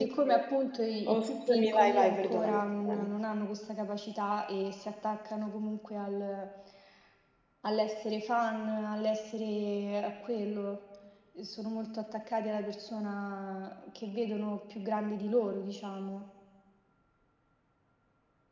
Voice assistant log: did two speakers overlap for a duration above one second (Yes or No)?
Yes